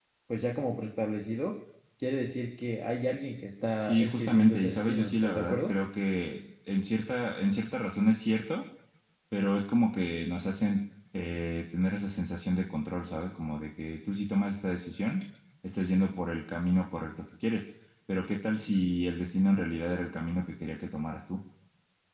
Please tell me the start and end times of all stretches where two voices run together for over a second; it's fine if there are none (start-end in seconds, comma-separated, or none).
3.8-5.8